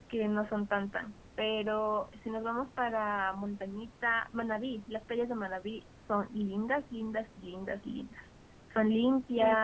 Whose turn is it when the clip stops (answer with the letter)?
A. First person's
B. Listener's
B